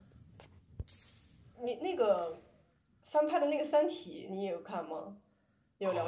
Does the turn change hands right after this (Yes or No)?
Yes